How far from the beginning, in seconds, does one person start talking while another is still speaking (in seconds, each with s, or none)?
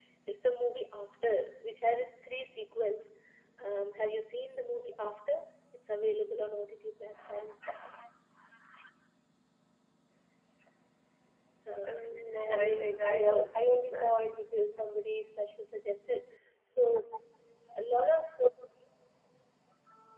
11.9 s